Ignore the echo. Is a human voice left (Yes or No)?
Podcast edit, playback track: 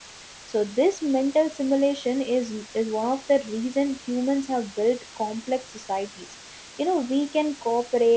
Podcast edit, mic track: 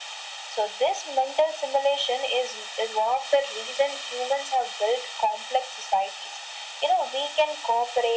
No